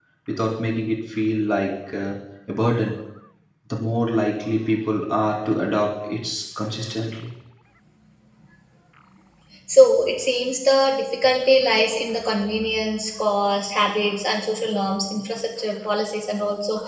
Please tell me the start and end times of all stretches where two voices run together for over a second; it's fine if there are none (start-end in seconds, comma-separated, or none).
none